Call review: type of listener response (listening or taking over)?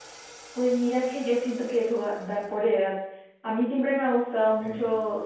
listening